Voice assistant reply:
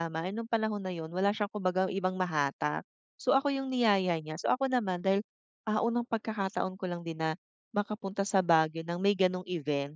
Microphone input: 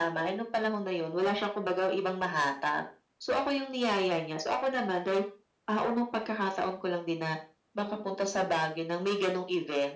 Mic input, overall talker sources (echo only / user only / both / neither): echo only